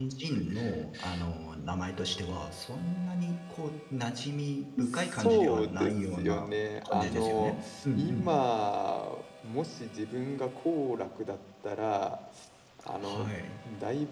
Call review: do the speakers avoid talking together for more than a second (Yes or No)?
No